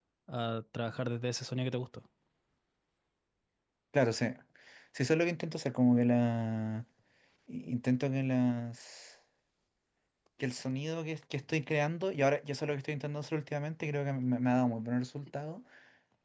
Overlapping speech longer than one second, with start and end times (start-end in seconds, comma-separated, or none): none